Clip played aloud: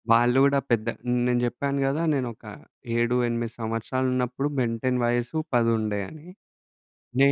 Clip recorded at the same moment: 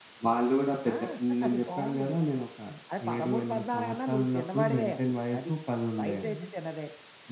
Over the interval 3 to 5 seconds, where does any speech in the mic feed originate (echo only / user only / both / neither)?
both